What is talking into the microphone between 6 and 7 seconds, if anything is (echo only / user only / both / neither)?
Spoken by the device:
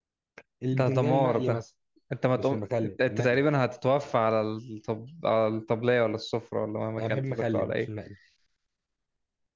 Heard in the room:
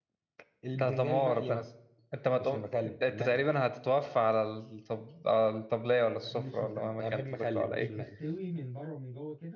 both